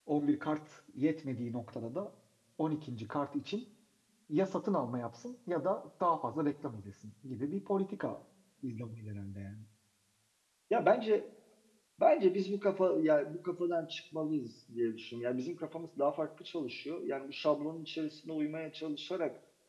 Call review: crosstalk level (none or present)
none